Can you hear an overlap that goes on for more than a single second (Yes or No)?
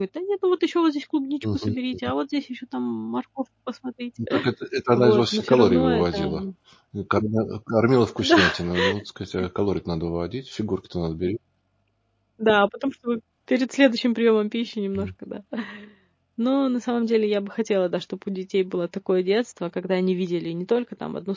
Yes